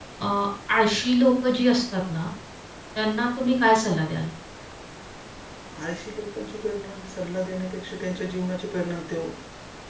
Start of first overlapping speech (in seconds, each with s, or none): none